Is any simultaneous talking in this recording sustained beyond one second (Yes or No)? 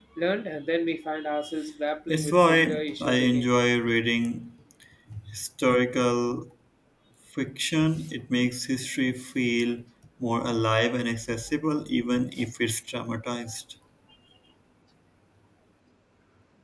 Yes